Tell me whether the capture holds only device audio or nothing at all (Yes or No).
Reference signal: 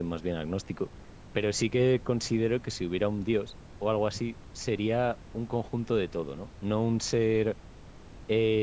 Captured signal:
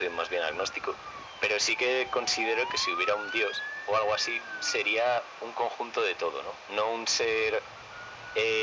Yes